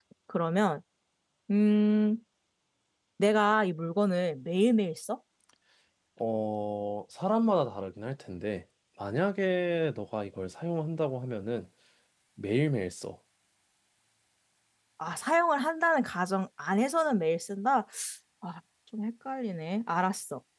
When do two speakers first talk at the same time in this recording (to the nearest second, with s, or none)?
none